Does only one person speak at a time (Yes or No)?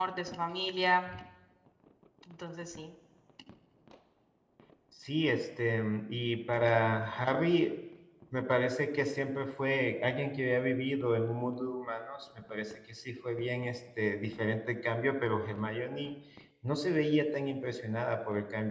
Yes